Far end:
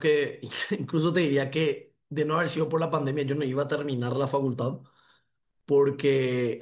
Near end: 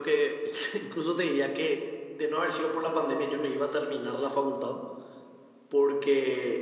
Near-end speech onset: none

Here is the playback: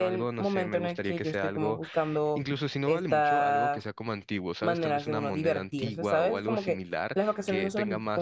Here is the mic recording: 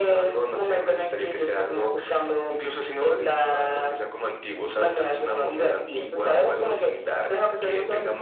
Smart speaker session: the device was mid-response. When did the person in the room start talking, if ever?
none

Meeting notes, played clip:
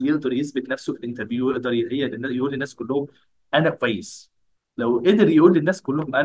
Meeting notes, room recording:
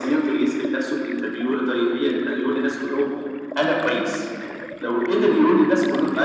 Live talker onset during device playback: none

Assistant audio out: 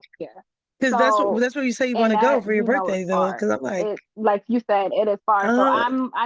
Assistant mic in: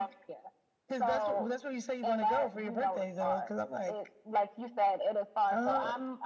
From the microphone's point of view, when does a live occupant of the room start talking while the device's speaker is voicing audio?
none

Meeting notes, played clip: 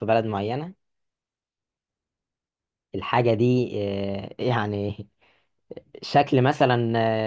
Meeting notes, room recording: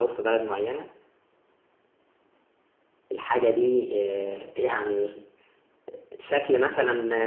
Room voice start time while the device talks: none

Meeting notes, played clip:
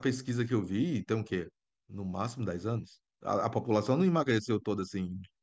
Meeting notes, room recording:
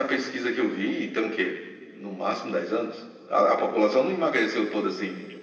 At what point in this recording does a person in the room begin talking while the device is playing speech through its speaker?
none

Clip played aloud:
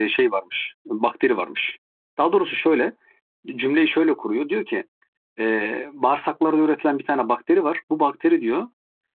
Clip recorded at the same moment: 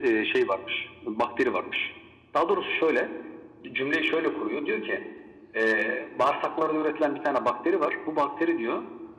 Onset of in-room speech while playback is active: none

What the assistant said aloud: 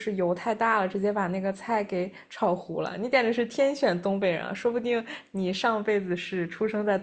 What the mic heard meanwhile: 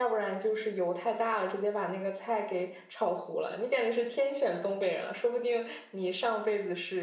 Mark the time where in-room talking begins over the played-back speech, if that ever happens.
none

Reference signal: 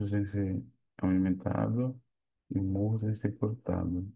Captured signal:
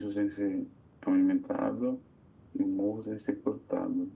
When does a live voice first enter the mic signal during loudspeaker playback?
none

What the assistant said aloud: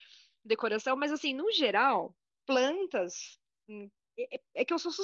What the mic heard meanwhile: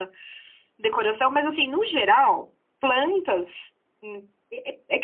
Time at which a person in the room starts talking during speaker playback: none

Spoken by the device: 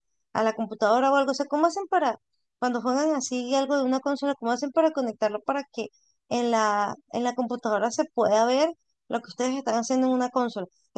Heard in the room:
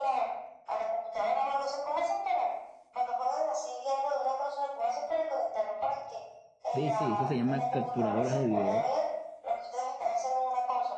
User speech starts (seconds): 6.7 s

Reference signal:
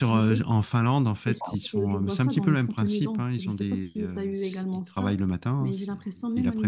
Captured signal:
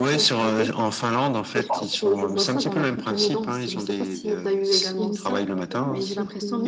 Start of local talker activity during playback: 5.0 s

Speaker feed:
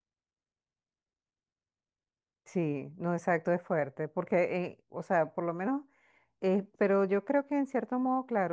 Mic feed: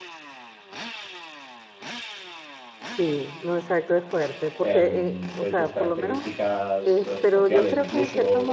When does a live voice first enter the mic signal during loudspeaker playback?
4.6 s

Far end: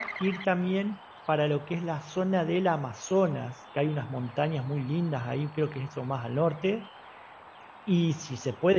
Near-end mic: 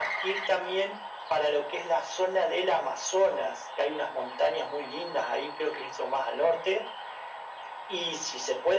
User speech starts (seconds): none

